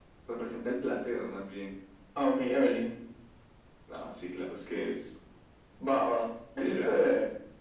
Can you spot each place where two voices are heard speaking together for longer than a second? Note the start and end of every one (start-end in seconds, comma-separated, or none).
none